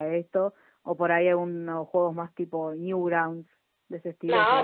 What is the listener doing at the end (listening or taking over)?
taking over